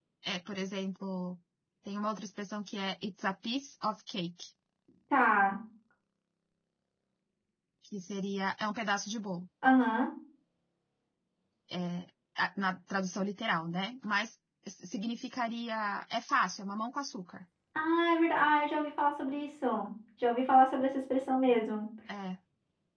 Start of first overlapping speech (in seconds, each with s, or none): none